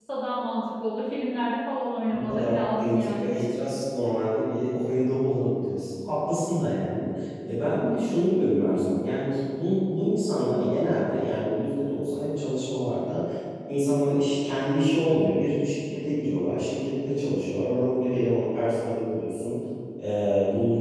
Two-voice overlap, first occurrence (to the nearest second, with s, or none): 2 s